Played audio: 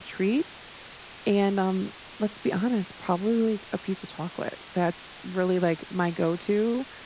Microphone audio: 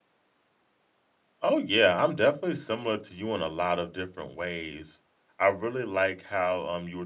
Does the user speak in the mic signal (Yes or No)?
Yes